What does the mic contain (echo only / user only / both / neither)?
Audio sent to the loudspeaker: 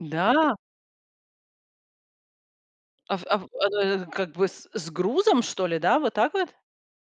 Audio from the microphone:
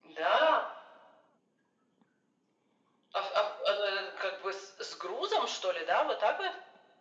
echo only